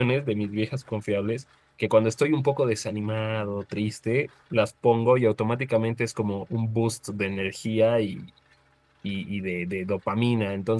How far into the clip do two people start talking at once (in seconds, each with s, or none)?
none